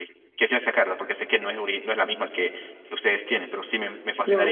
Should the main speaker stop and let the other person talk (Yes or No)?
Yes